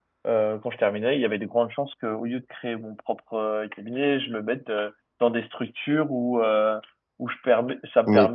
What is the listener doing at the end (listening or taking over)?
listening